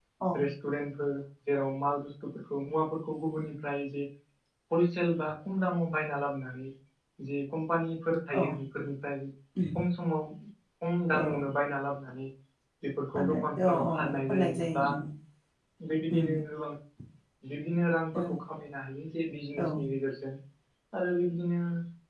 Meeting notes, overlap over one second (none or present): present